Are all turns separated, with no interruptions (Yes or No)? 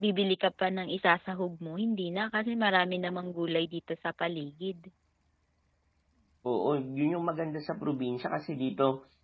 Yes